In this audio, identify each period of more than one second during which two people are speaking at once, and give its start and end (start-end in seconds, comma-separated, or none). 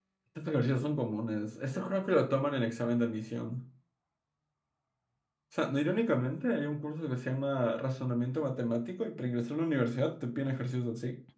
none